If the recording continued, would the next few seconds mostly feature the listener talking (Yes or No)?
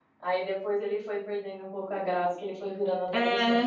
Yes